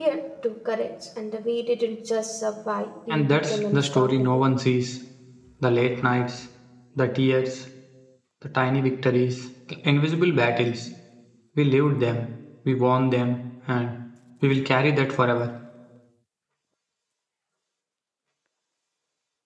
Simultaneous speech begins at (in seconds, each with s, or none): 3.1 s